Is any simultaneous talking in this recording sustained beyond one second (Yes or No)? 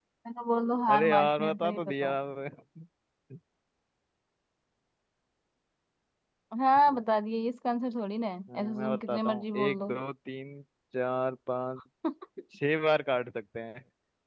Yes